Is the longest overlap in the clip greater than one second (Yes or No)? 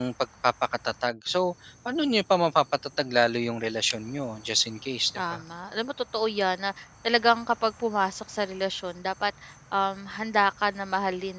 No